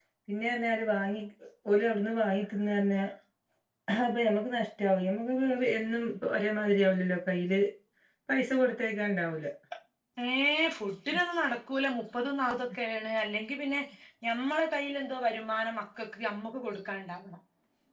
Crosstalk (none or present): none